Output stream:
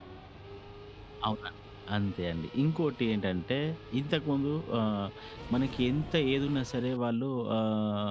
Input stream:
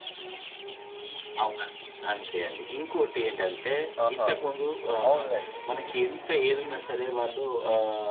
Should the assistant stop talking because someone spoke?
Yes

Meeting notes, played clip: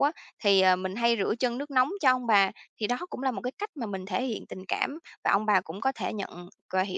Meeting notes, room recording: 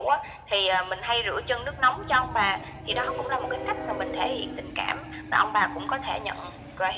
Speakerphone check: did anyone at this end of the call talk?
No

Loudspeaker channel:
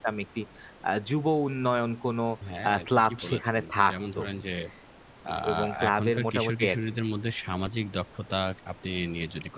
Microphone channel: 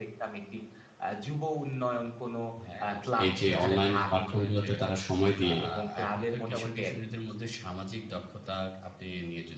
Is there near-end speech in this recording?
Yes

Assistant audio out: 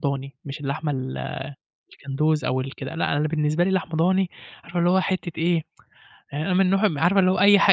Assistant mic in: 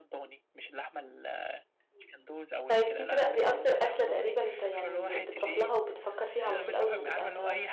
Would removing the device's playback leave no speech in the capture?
No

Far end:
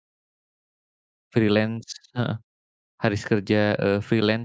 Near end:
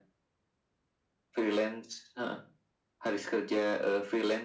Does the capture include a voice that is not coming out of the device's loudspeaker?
No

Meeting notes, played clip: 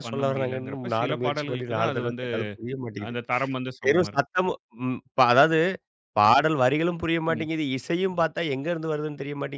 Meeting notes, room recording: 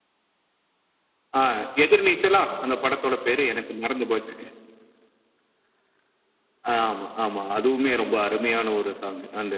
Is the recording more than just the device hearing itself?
Yes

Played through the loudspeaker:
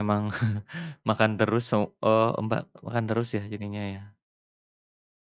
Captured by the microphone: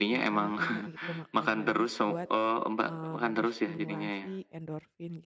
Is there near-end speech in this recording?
Yes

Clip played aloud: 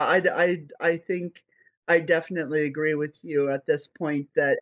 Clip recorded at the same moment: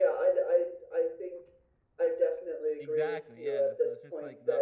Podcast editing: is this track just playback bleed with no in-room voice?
No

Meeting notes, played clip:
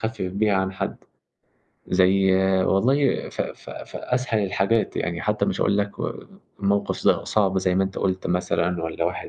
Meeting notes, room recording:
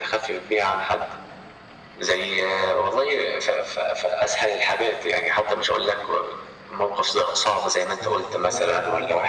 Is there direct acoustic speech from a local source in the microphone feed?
Yes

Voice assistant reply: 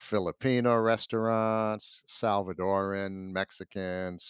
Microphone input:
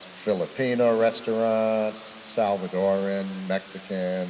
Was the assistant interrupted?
No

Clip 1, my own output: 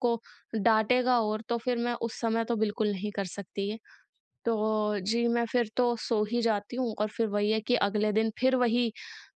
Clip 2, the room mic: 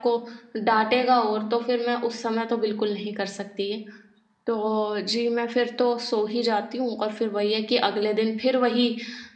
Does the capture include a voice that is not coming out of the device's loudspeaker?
No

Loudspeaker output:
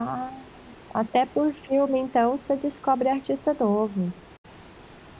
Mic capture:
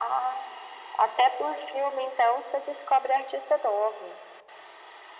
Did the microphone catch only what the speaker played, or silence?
Yes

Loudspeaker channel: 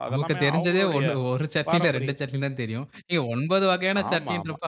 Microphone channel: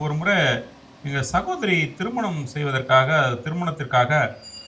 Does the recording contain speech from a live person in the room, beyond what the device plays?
Yes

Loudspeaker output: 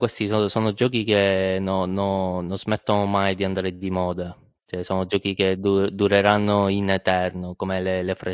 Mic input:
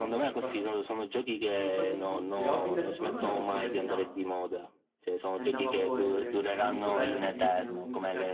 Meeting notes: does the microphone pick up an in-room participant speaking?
Yes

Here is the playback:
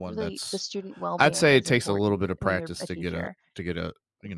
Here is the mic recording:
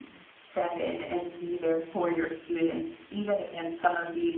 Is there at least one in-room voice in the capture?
Yes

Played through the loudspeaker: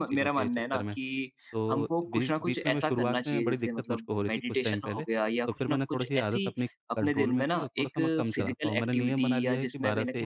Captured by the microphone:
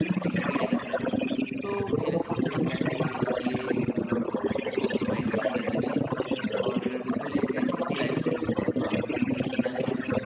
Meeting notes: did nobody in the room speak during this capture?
No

